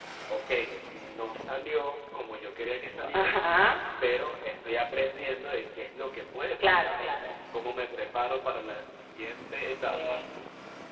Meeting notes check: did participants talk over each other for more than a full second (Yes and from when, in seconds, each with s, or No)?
No